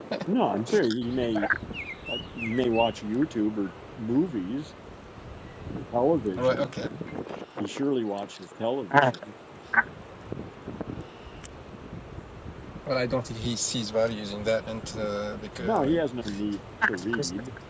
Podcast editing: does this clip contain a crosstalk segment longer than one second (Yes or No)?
No